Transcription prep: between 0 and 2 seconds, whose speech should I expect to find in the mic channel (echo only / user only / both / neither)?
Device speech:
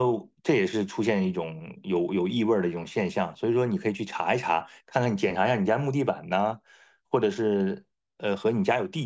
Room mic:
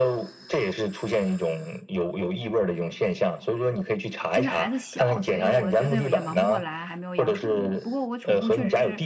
echo only